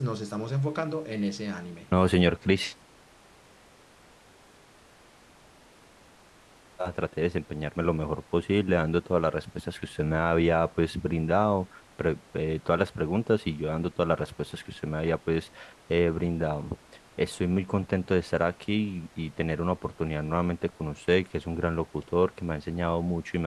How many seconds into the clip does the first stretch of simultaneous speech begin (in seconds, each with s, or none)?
none